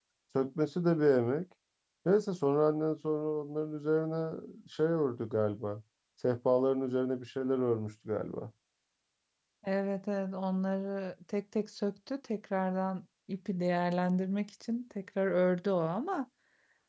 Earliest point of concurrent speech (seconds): none

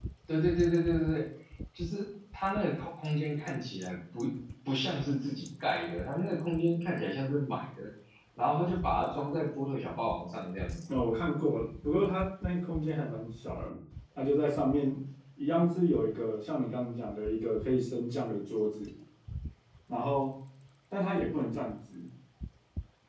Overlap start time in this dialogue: none

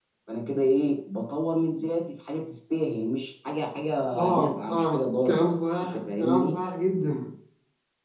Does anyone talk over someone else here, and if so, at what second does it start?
4.1 s

